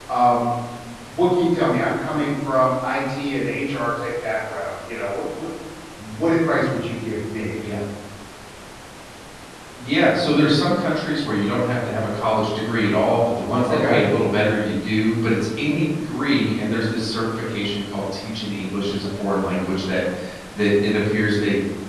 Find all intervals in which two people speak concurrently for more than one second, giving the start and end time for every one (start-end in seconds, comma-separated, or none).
none